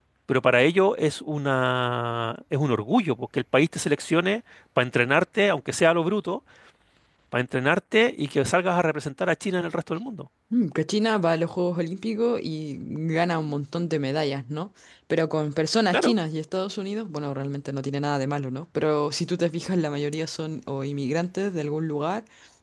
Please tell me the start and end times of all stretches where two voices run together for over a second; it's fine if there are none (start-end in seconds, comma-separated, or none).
none